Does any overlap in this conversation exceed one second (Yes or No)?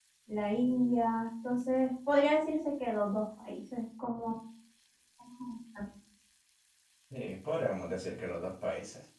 No